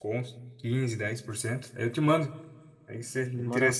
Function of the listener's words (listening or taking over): taking over